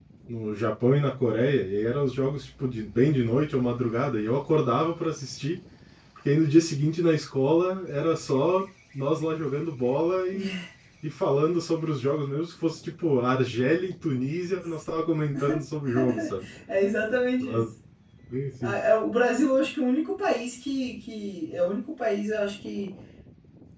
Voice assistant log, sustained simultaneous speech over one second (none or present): none